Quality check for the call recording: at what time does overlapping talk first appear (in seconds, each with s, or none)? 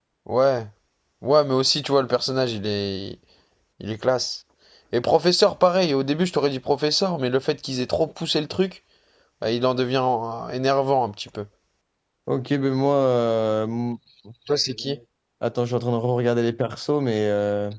none